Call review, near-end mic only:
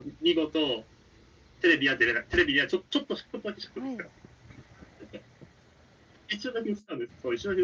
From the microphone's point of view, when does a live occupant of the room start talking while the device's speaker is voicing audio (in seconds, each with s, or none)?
3.8 s